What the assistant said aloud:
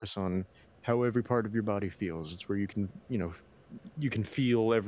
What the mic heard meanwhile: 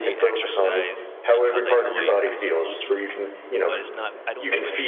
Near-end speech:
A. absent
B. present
B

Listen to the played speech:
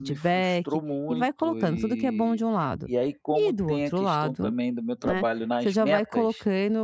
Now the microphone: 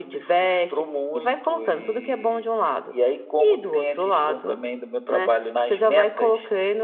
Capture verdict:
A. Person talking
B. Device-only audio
B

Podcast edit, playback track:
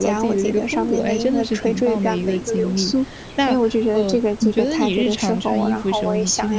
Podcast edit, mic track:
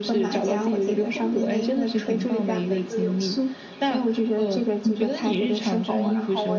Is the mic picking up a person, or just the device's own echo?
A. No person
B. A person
A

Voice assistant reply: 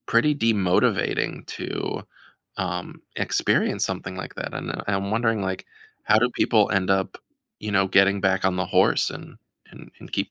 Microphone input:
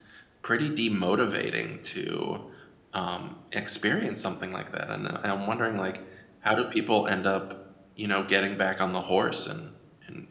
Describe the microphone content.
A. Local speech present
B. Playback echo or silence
B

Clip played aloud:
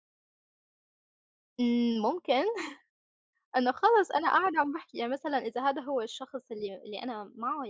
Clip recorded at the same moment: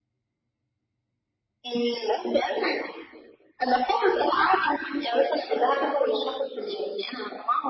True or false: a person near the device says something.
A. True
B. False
B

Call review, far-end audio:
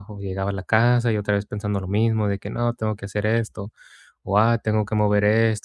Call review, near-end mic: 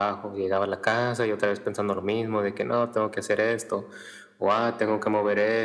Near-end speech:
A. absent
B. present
A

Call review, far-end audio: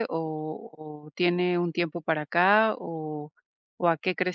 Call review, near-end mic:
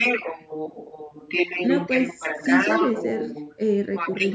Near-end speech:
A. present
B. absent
A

